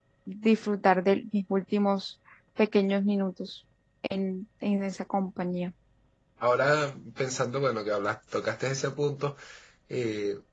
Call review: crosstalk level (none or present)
none